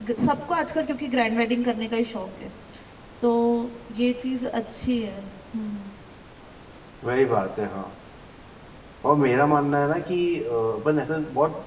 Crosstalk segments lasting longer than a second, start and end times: none

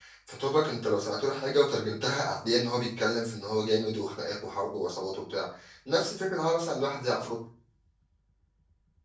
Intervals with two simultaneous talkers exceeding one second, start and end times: none

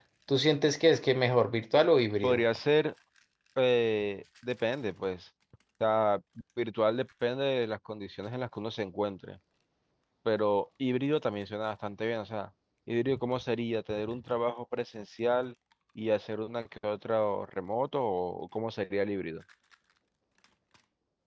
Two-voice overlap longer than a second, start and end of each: none

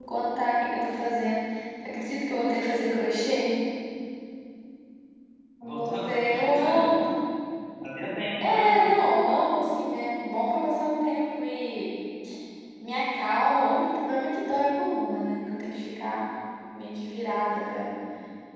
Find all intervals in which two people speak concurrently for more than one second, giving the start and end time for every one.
5.6-6.9

